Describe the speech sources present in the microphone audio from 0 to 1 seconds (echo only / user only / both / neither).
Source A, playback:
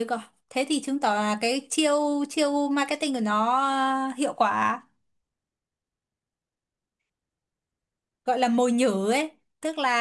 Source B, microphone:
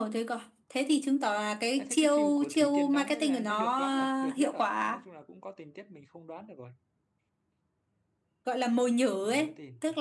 echo only